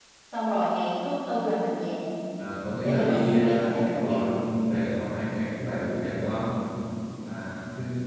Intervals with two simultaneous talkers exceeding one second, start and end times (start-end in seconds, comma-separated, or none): 2.8-4.3